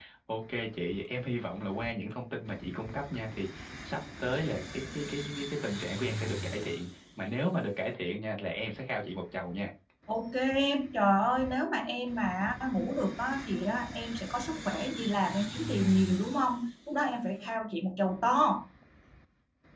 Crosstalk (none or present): none